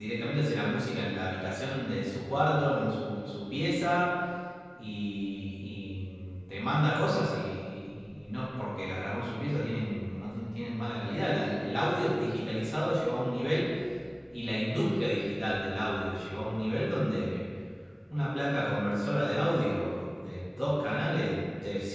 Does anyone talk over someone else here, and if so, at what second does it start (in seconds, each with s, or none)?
none